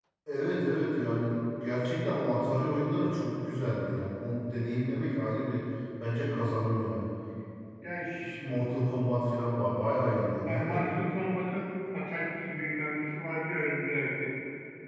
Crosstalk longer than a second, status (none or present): none